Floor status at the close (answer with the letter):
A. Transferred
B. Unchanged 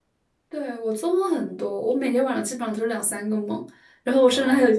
B